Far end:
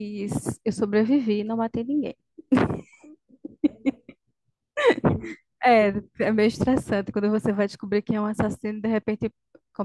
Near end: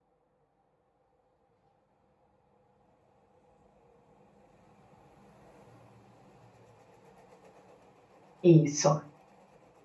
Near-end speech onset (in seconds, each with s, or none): 8.4 s